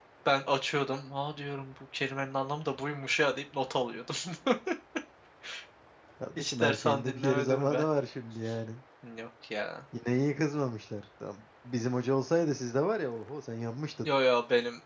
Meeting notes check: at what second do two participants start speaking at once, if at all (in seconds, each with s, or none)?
6.4 s